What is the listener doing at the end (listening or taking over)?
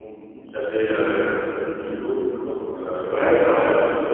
taking over